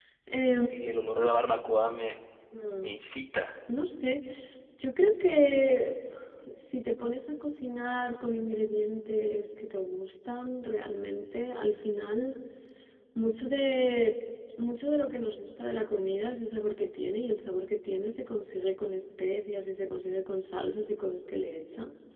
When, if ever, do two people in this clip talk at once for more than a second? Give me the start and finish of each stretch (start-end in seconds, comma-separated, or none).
none